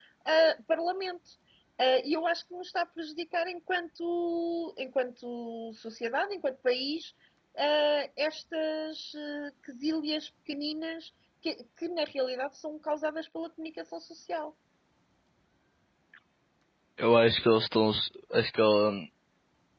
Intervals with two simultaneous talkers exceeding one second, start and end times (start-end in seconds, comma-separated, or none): none